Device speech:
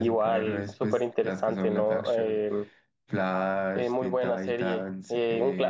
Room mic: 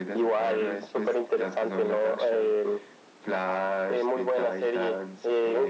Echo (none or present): present